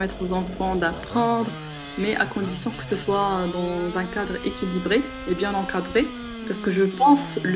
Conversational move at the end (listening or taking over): listening